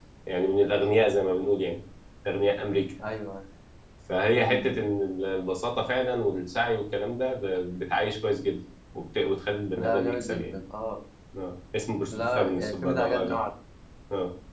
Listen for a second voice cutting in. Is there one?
Yes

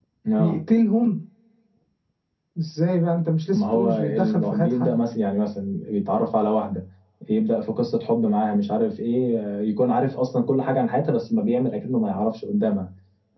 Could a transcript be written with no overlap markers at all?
No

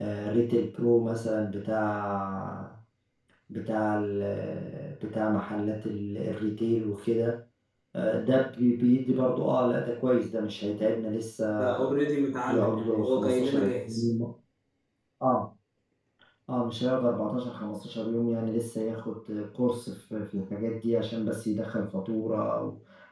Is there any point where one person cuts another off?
Yes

